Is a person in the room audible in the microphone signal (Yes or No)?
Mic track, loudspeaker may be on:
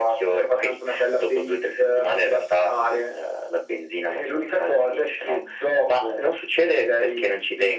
No